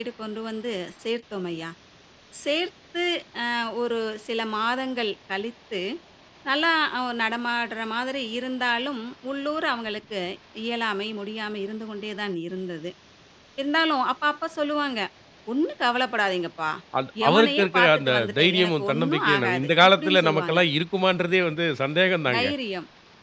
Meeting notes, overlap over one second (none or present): present